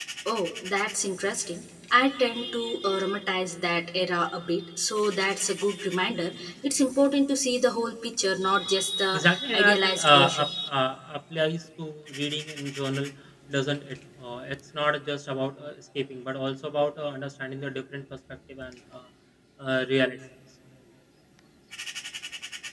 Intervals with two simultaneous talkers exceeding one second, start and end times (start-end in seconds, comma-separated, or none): 9.1-10.5